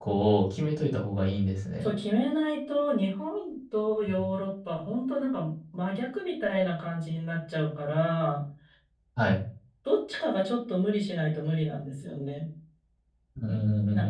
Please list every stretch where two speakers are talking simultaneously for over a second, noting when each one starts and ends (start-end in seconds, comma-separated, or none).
none